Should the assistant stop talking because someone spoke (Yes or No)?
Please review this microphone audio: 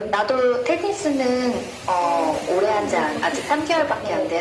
No